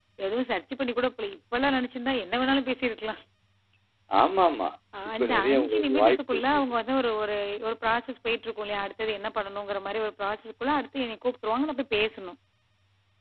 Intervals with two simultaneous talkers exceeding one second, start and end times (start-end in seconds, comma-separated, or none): 5.2-6.4